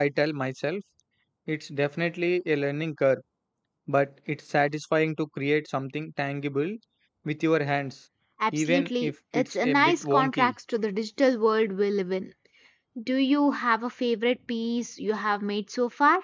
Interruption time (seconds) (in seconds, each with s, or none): 8.5 s